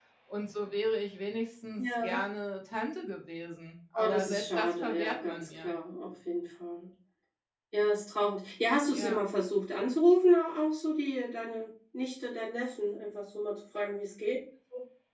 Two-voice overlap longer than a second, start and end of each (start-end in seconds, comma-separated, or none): 3.9-5.7